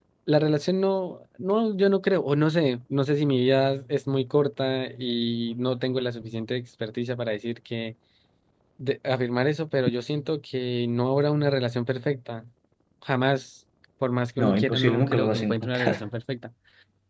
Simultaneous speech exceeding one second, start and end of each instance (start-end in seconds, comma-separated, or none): 14.4-16.0